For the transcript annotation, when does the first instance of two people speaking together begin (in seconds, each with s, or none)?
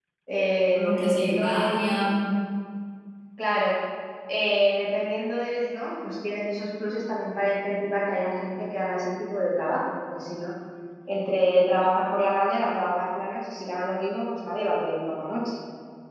0.7 s